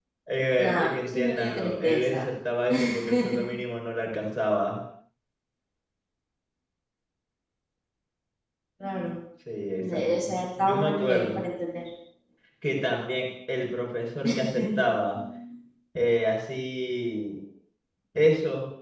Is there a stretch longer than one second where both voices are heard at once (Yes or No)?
Yes